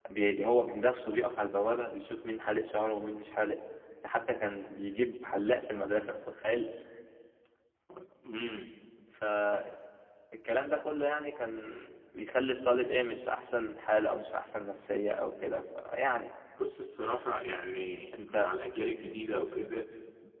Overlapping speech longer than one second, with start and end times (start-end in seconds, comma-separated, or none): none